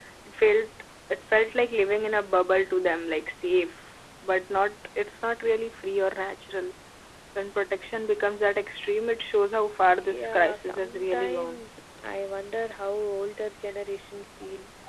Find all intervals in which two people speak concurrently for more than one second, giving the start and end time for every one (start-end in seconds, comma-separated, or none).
10.1-11.6